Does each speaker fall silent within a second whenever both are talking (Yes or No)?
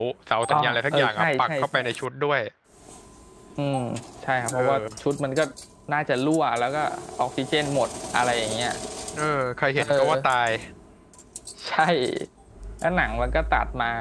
No